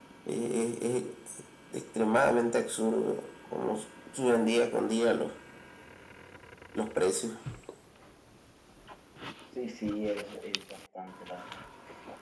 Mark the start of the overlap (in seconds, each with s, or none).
none